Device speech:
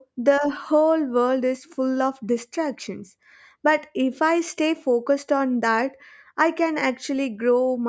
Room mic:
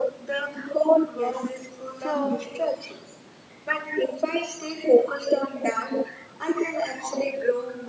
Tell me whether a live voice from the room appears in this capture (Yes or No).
Yes